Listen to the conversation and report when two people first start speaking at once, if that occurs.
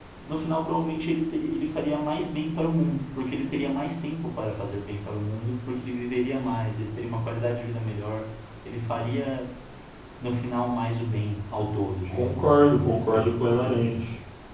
12.1 s

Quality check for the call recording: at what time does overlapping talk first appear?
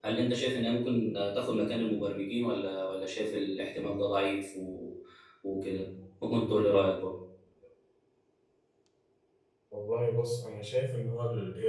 none

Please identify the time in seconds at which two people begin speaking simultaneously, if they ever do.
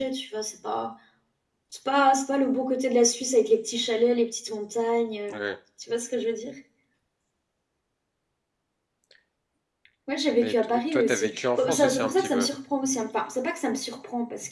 10.3 s

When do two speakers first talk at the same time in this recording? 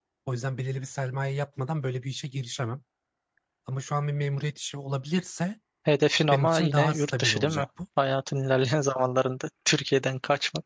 6.3 s

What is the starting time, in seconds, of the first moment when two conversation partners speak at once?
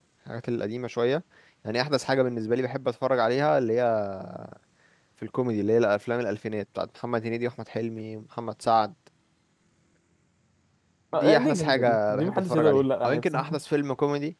11.1 s

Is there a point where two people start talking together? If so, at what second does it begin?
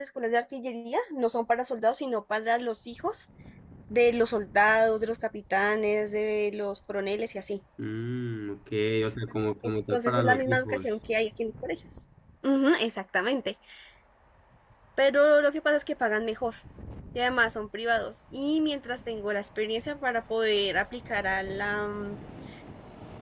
9.6 s

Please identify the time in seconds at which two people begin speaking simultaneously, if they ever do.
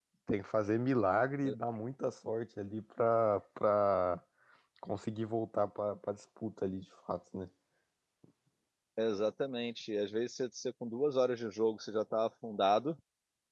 none

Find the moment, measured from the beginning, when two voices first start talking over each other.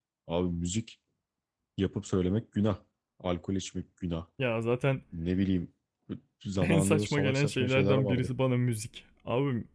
6.7 s

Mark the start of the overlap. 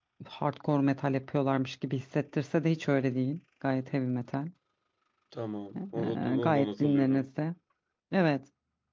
5.8 s

